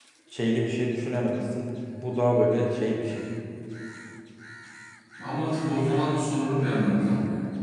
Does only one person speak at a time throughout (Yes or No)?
Yes